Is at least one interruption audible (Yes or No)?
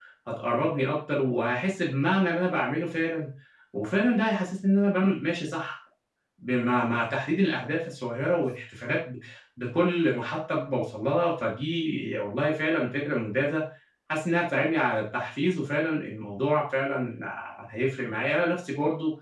No